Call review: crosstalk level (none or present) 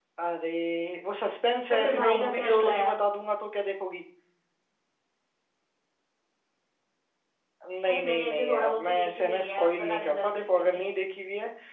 present